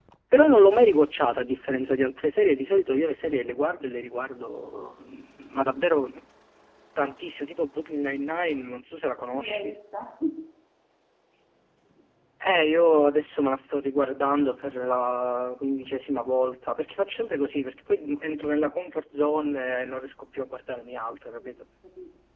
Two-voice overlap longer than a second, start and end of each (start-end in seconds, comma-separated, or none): none